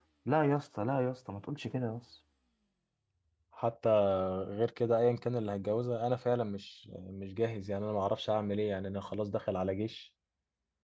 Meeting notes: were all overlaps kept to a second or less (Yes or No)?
Yes